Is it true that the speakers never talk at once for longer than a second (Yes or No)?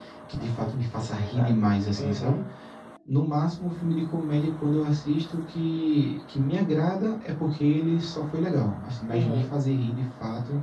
No